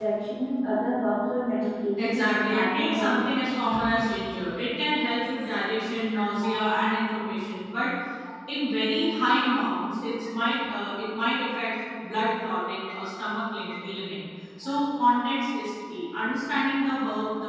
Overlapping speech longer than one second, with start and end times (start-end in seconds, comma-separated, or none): 2.0-3.3